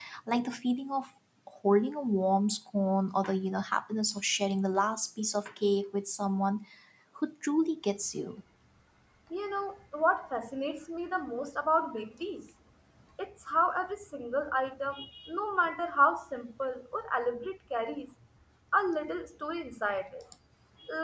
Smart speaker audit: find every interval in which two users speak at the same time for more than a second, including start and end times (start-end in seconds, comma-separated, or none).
none